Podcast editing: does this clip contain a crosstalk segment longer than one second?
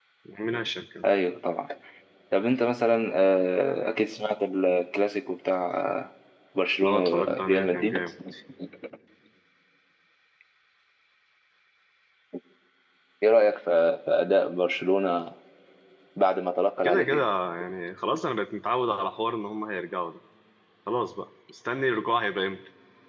Yes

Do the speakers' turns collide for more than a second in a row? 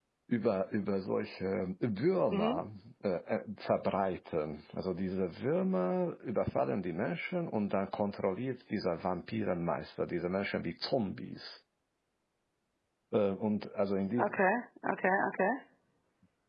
No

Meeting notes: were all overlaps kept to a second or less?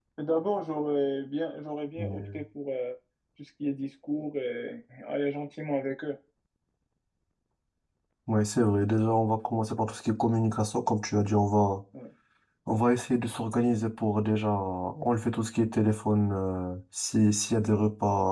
Yes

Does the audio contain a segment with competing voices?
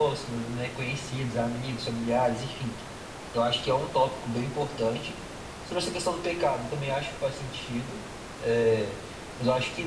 No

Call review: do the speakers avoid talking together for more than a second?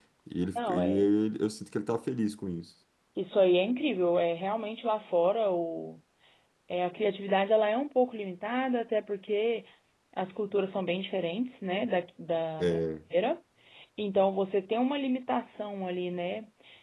Yes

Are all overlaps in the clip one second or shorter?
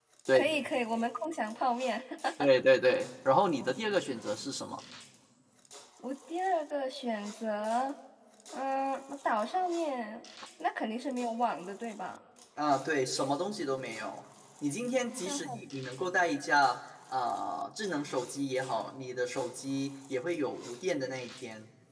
Yes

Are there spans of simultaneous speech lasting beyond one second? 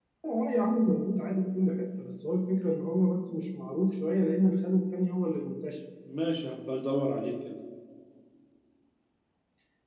No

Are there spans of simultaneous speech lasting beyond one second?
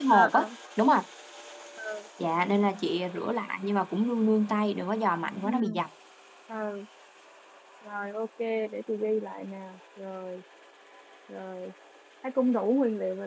No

